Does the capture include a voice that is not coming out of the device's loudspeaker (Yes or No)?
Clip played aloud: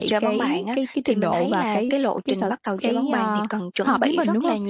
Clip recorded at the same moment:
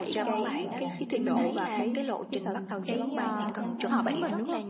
Yes